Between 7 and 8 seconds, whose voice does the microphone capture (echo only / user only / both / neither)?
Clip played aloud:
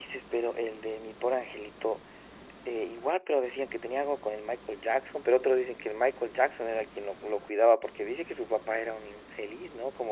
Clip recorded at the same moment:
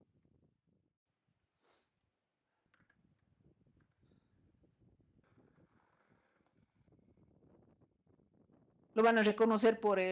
neither